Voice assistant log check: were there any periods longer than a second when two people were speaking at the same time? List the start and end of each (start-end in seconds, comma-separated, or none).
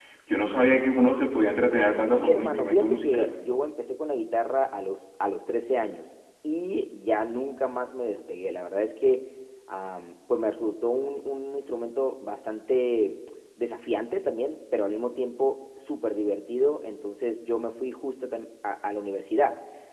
1.9-3.3